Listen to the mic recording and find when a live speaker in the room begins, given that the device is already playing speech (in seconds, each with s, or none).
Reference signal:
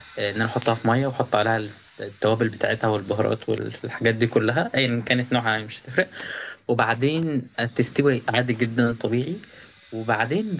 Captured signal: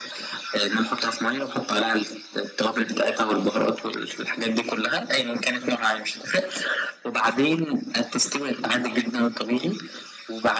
none